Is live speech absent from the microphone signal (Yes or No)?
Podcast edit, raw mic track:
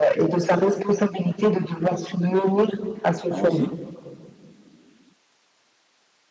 No